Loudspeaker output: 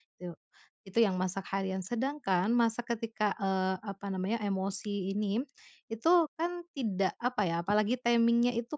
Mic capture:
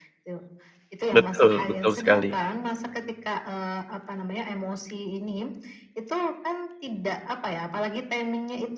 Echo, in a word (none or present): present